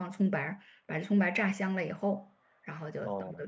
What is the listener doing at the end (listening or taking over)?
listening